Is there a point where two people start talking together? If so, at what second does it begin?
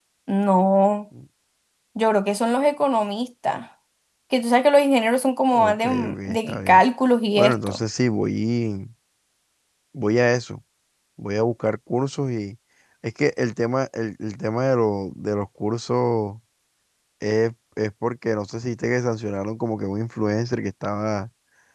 5.5 s

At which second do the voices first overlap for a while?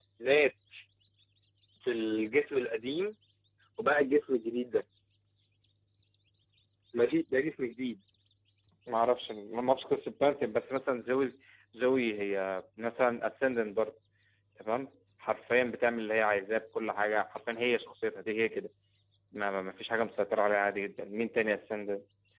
none

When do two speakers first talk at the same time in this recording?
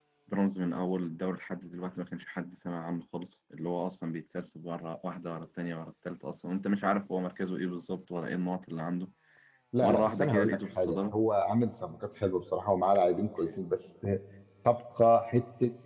9.8 s

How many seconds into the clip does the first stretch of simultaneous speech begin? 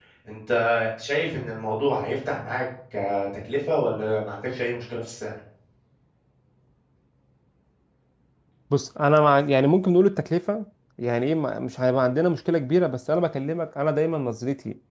none

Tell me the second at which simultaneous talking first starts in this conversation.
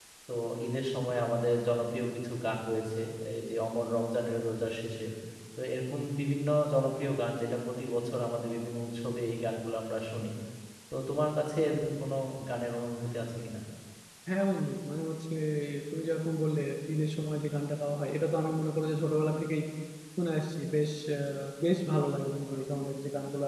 none

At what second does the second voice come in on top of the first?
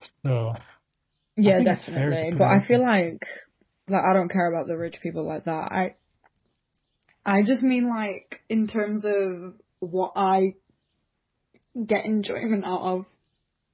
1.4 s

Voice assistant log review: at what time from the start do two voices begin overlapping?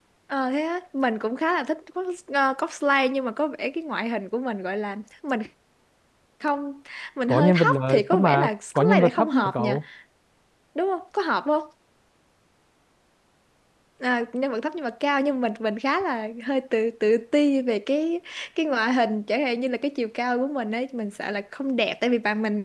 7.3 s

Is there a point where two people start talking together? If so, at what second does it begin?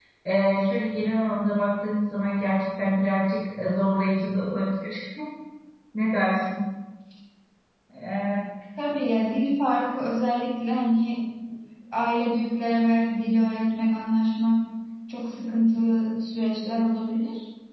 none

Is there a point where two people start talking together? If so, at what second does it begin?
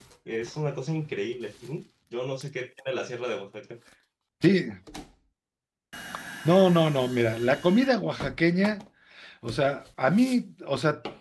none

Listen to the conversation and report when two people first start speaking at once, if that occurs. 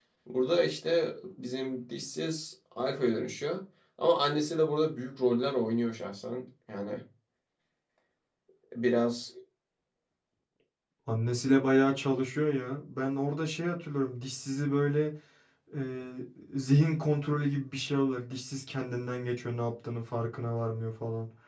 none

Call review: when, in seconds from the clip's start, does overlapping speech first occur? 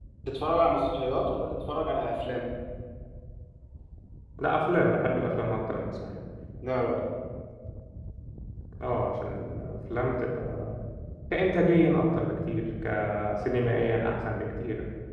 none

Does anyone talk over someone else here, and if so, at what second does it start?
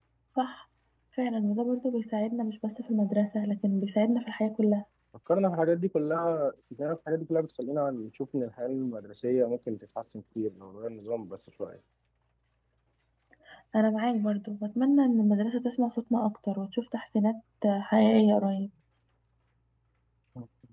none

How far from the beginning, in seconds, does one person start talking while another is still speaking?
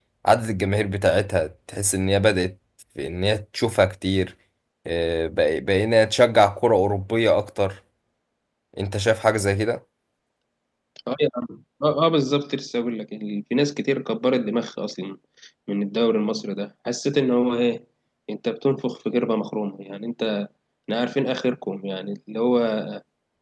none

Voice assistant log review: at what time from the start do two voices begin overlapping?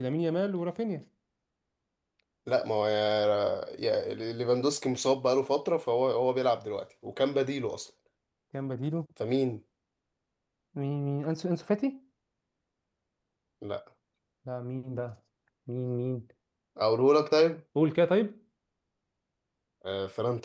none

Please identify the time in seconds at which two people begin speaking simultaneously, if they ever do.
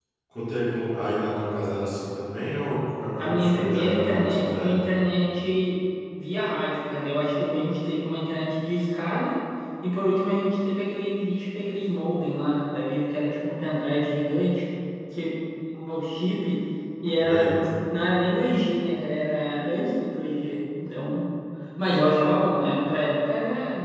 3.2 s

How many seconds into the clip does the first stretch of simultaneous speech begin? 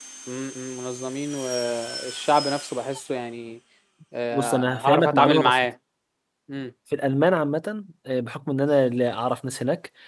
4.3 s

